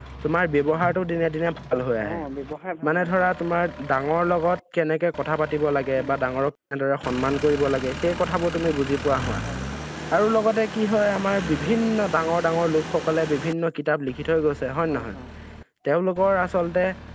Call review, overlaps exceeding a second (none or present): none